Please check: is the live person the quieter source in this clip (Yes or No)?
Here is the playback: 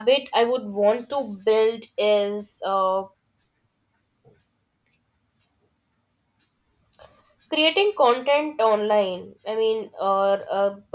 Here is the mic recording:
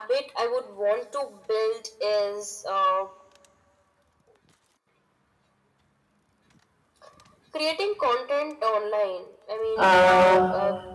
No